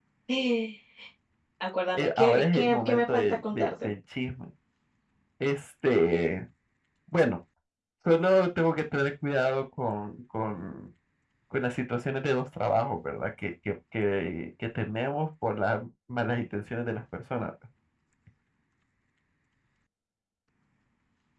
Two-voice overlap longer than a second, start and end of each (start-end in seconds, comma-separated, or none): 2.0-3.9